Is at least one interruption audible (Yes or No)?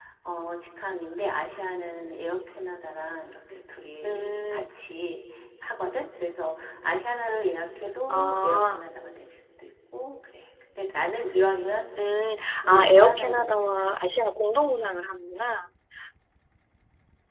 Yes